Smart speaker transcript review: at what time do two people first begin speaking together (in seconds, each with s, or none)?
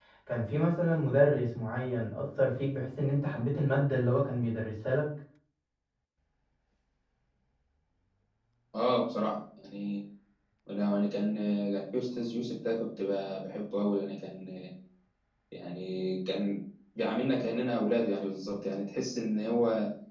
none